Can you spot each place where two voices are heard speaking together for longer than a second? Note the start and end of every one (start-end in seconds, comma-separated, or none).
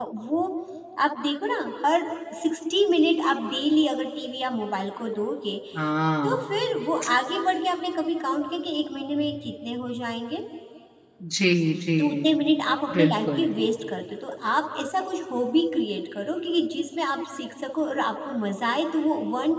none